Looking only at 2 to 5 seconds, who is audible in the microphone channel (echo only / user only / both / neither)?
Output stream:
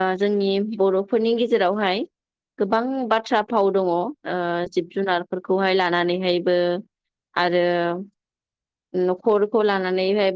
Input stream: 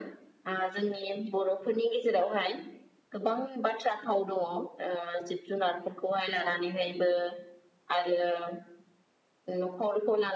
echo only